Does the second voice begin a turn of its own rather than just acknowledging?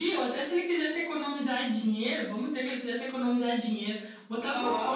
No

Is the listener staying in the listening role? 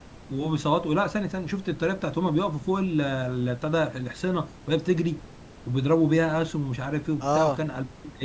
Yes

